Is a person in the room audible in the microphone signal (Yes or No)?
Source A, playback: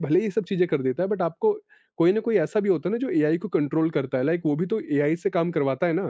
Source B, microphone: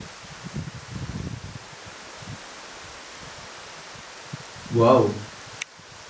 Yes